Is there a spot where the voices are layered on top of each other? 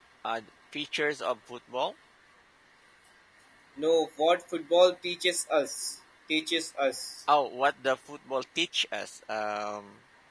No

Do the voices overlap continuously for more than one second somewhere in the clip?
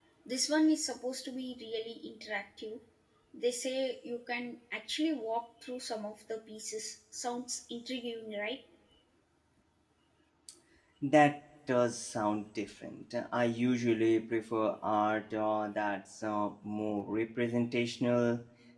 No

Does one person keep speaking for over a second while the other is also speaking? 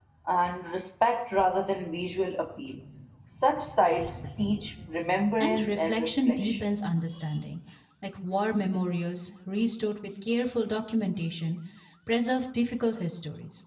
Yes, from 5.4 s

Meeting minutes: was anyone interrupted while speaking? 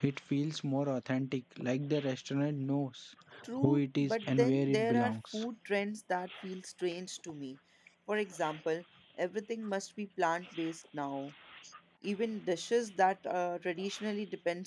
Yes, from 3.6 s

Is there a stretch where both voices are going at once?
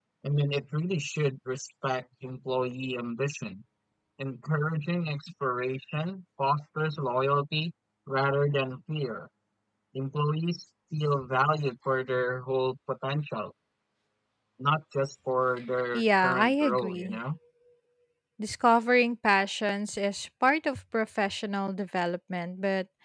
Yes, from 15.9 s

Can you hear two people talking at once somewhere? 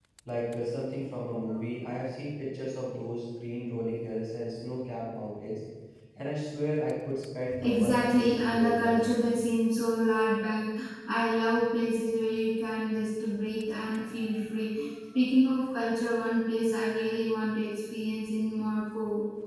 Yes, from 7.5 s

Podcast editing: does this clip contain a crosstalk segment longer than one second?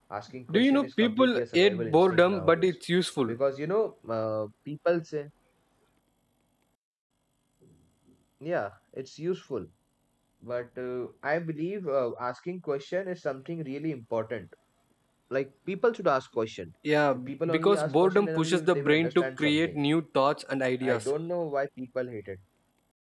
Yes, from 0.5 s

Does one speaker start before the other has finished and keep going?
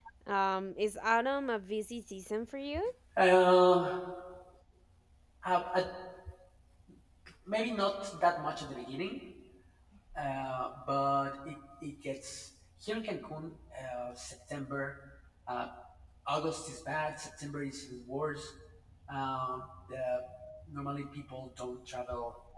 No

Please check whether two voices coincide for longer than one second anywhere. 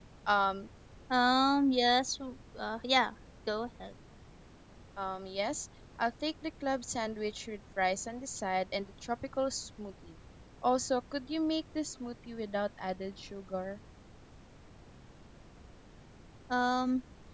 No

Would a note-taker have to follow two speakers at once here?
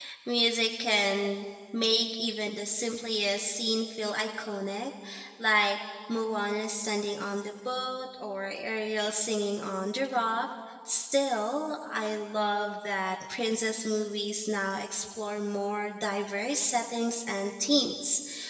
No

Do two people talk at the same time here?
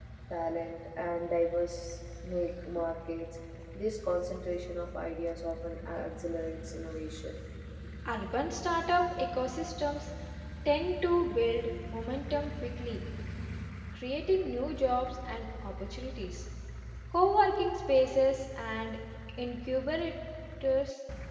No

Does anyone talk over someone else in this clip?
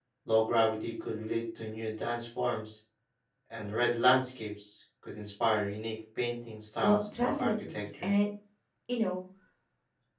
Yes, from 6.8 s

